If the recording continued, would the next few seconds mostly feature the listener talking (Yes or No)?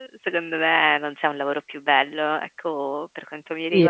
Yes